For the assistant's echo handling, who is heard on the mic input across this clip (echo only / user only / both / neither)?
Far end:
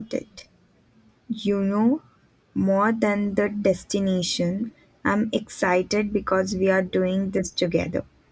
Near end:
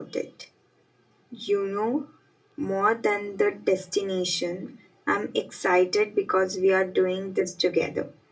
echo only